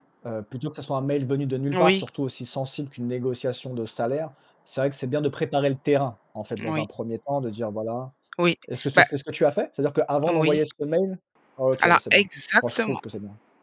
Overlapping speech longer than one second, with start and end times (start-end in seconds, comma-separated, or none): none